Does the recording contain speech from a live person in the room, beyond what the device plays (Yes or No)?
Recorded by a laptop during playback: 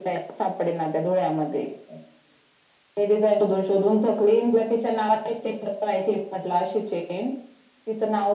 No